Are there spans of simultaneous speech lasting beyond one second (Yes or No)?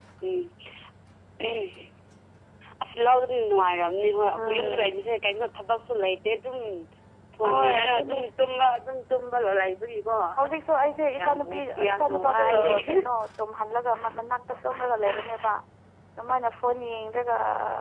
Yes